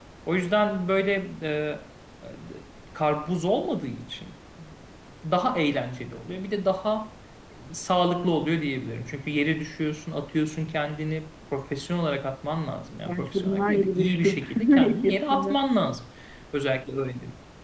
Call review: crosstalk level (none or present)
present